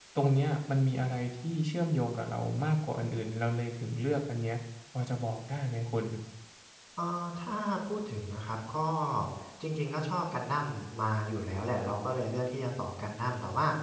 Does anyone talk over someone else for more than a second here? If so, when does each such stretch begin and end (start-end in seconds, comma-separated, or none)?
none